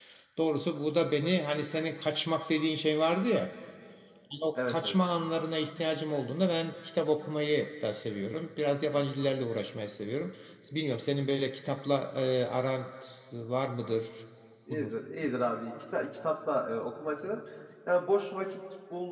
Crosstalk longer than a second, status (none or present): none